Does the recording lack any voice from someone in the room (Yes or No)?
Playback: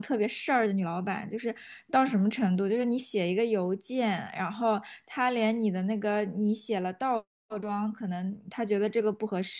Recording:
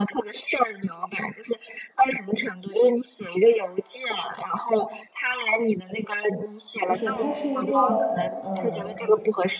No